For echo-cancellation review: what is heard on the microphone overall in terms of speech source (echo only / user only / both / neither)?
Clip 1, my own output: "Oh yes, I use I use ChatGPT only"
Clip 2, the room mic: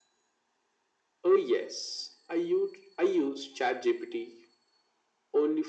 echo only